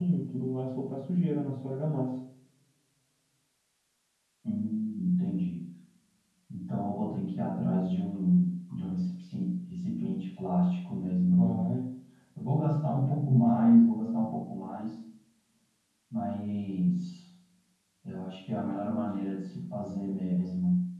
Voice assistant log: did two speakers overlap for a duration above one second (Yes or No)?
No